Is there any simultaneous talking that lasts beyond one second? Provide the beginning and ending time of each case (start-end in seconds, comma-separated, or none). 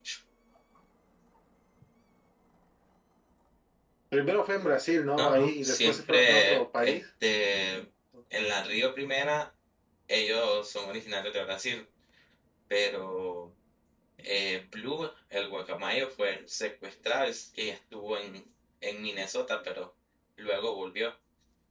5.2-7.0